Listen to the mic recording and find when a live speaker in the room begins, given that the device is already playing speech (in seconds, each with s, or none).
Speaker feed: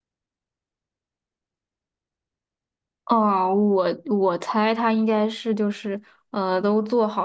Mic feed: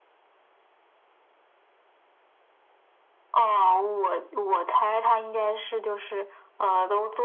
none